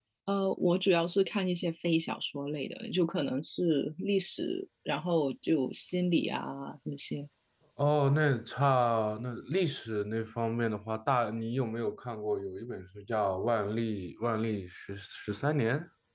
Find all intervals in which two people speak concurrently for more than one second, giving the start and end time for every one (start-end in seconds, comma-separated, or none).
none